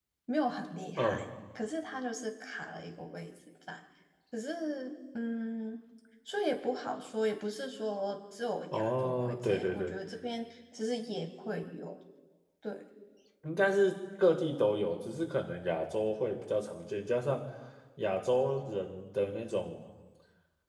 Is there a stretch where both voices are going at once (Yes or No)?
Yes